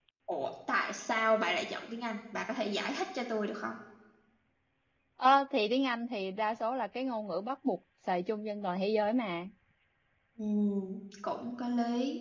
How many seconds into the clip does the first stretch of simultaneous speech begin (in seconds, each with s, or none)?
none